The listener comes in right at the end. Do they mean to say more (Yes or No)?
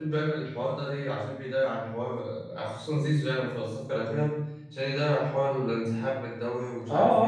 Yes